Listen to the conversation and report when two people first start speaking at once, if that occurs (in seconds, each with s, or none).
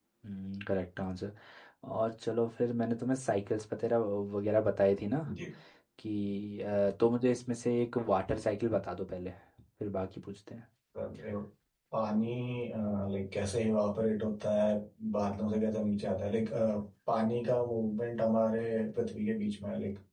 none